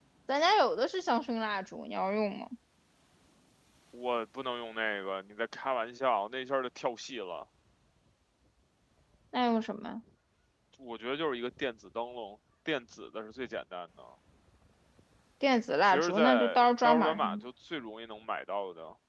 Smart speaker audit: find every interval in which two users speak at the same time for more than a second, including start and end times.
15.8-17.4

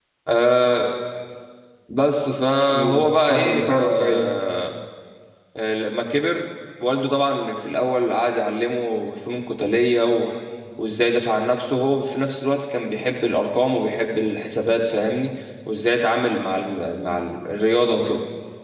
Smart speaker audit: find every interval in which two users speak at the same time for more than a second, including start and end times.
2.7-4.3

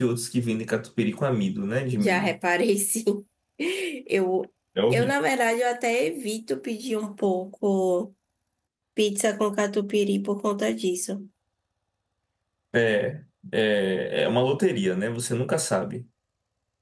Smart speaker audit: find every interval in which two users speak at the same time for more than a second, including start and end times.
none

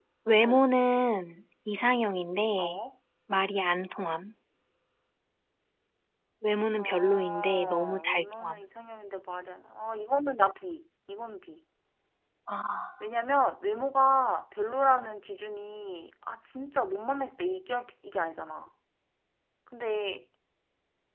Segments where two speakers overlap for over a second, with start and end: 6.8-8.6

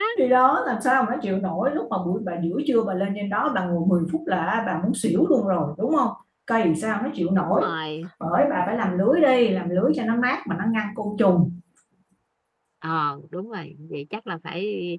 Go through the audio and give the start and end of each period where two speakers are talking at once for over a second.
none

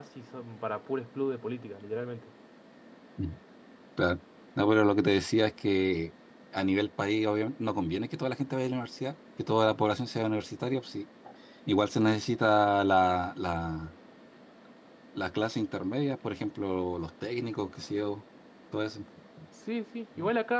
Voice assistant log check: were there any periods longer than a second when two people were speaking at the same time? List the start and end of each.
none

